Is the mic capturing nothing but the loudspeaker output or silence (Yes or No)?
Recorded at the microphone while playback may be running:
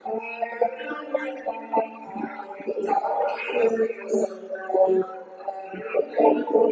Yes